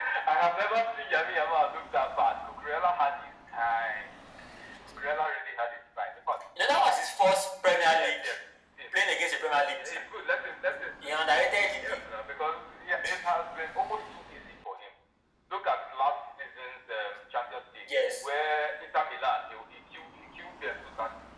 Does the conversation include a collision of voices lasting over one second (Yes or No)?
No